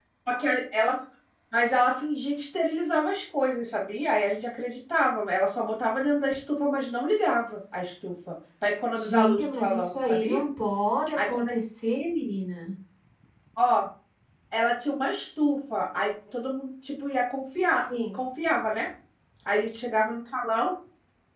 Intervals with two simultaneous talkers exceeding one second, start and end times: 8.9-10.4

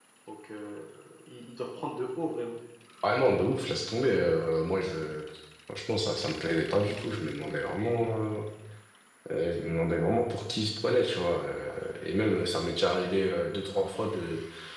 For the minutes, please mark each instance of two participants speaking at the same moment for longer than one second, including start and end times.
none

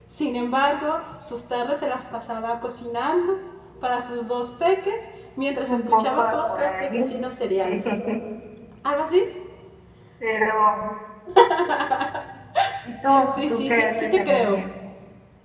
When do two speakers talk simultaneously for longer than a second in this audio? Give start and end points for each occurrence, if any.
5.6-7.0, 13.3-14.6

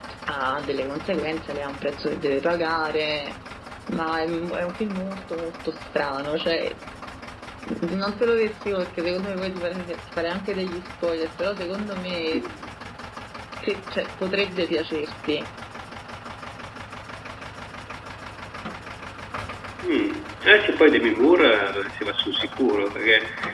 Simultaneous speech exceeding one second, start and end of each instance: none

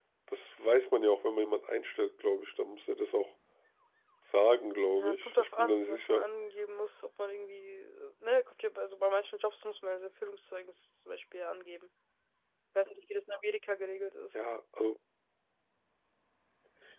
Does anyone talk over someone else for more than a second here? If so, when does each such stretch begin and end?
4.9-6.3

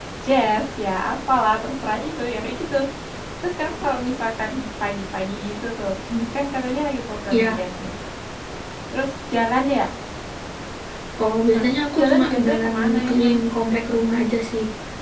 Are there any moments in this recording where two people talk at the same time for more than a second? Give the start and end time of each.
11.5-13.3

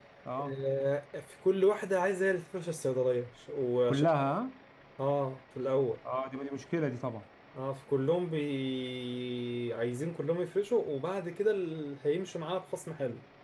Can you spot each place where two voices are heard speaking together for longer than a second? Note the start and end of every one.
none

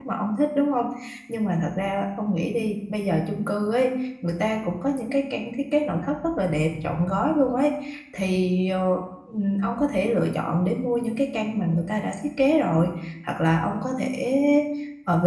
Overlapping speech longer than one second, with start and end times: none

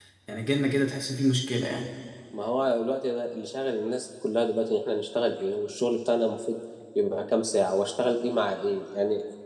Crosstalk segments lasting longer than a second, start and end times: none

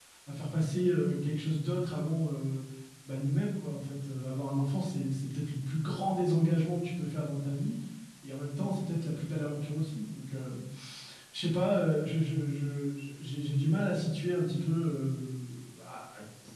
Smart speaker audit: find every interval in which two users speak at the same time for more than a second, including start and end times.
none

